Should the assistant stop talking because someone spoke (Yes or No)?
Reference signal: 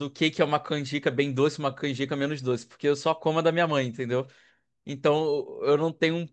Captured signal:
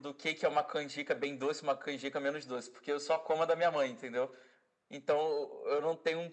No